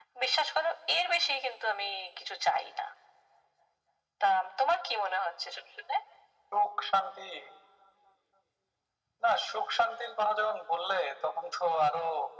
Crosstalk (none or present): none